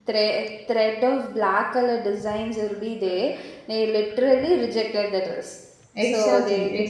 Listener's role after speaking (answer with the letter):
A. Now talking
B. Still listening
A